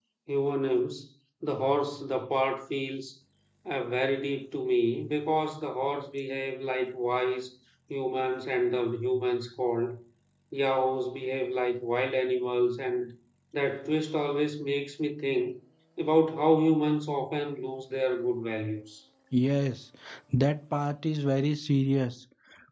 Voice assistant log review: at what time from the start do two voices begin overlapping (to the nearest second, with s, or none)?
none